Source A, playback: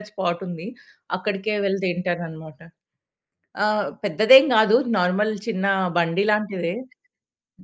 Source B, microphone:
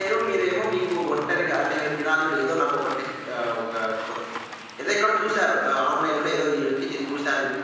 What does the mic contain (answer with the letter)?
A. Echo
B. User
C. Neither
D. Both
B